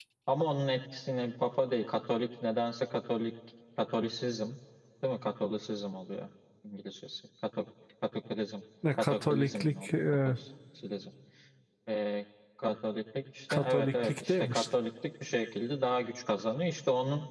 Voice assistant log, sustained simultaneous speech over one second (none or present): present